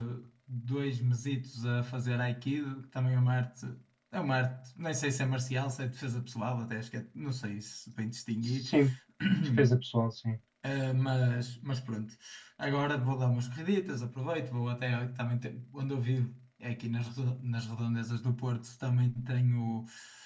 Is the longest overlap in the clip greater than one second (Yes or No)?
No